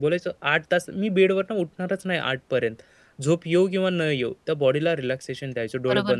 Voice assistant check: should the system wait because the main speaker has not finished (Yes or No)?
No